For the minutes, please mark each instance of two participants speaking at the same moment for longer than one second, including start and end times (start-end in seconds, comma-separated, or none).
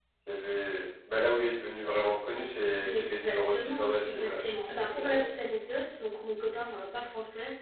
2.9-5.3